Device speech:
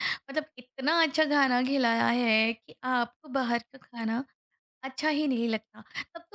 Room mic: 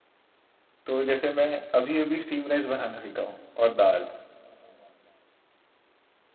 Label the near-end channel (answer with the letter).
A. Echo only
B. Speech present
B